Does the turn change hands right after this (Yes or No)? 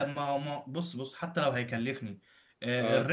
No